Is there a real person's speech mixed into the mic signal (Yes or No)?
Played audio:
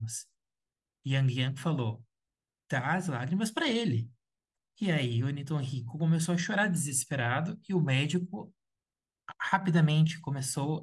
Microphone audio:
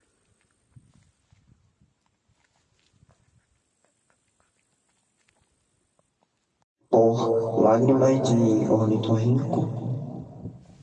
Yes